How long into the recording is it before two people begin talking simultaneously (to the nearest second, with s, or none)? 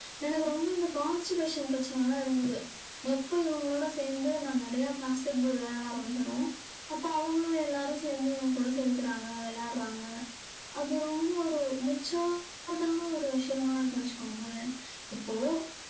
none